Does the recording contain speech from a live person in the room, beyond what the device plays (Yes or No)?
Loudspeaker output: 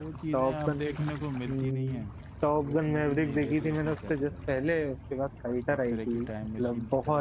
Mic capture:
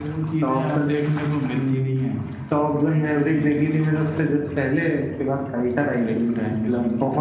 No